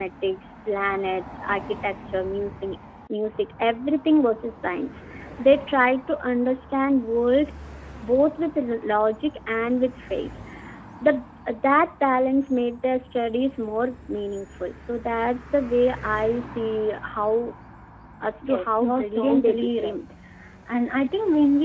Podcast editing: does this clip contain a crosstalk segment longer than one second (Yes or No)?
Yes